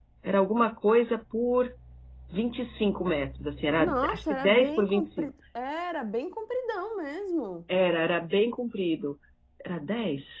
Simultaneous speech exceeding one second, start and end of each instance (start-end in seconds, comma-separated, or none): 3.8-5.3